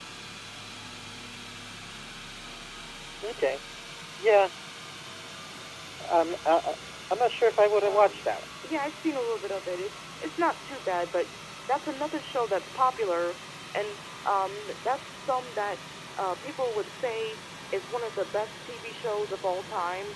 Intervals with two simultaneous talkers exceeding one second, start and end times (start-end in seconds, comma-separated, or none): none